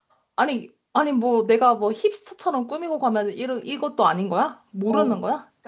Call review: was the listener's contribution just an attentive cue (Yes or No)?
No